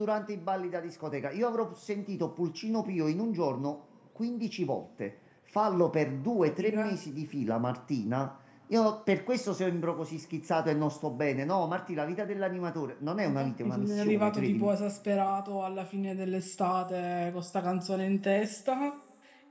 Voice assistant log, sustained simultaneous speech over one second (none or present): present